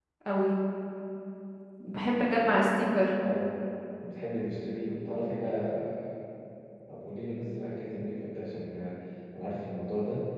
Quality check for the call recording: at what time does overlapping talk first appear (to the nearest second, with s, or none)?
none